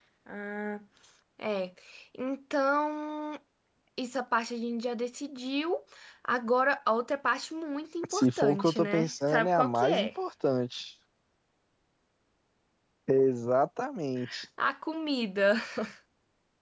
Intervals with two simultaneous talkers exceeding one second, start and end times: 8.1-10.1

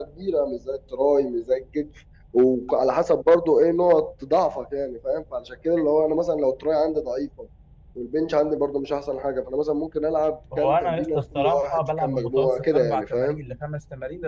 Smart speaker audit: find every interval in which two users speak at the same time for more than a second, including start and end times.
10.6-13.4

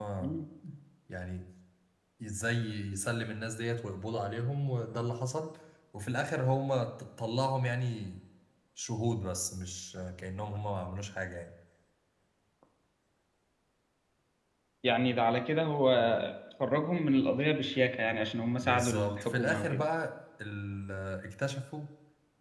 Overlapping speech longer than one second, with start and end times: 18.6-19.8

